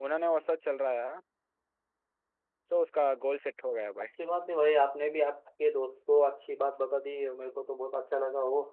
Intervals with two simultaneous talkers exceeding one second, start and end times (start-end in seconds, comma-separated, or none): none